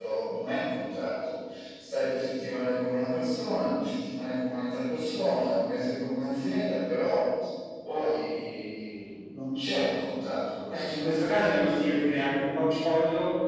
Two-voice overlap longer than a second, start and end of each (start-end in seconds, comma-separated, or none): 10.7-12.4